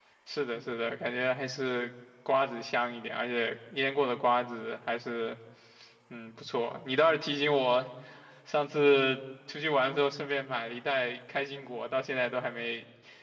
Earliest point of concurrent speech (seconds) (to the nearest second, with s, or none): none